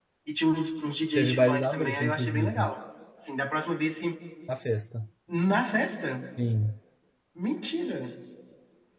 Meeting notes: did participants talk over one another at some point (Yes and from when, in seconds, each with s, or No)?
Yes, from 1.2 s